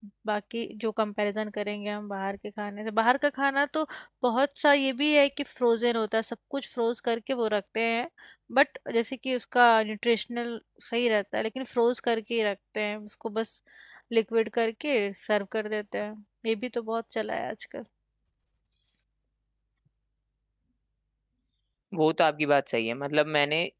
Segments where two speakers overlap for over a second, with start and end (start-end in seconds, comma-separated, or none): none